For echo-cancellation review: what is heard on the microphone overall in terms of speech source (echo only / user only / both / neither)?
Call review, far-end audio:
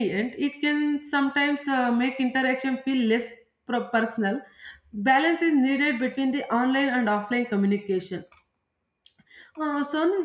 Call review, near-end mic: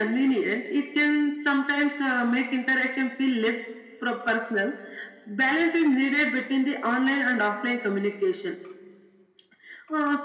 echo only